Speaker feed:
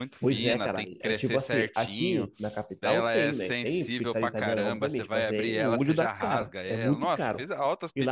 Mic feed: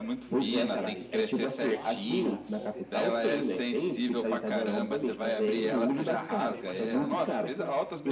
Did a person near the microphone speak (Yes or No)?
Yes